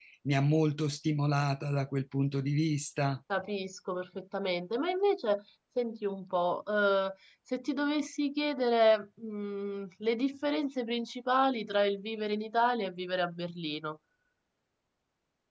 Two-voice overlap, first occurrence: none

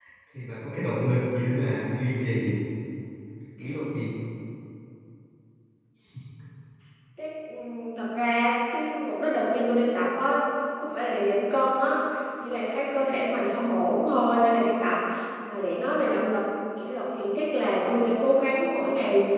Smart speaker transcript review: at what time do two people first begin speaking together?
none

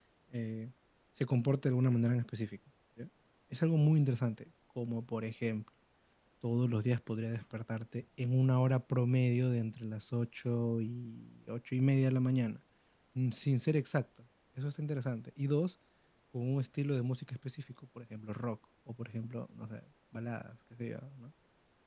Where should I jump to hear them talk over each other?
none

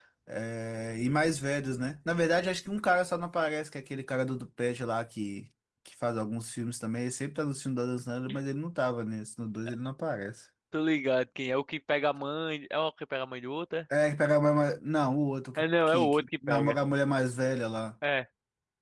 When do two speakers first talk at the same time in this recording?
15.6 s

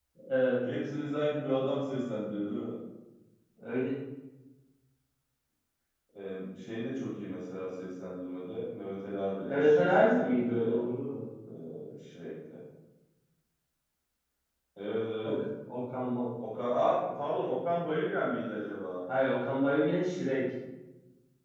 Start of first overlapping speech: 9.5 s

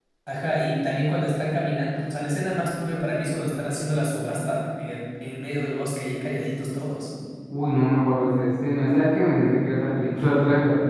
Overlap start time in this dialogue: none

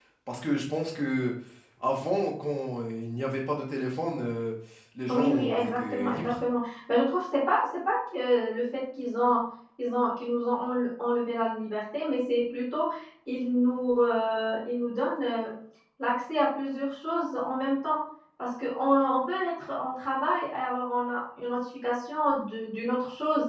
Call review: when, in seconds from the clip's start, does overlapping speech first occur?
5.1 s

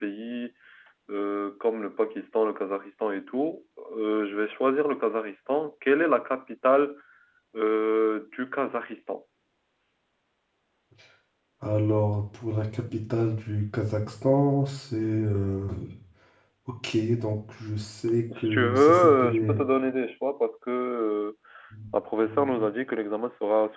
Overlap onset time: 18.4 s

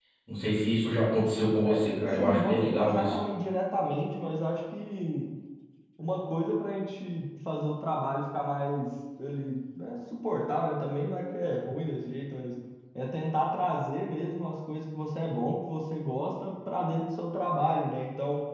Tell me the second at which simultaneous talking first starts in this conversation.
1.6 s

